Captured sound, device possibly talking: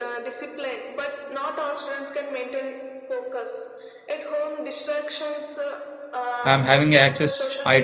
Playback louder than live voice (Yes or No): No